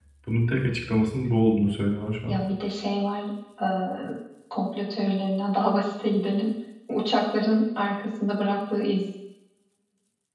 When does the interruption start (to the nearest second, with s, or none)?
none